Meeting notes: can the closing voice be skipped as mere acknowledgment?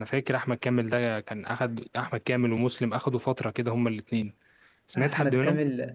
No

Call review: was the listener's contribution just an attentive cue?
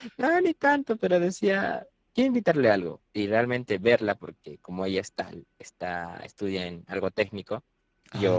Yes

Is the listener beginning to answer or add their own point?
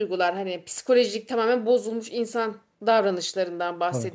No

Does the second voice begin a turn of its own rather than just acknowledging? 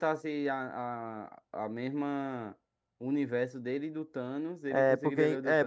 Yes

